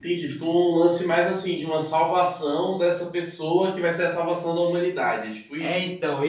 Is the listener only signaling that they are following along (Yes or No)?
No